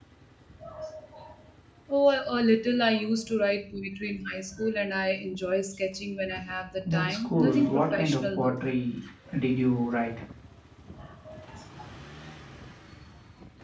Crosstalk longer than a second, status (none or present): present